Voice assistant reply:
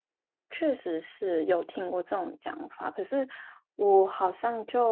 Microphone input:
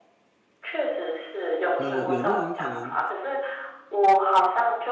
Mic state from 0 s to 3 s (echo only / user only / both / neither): both